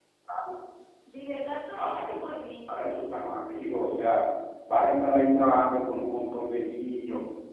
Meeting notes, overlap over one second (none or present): none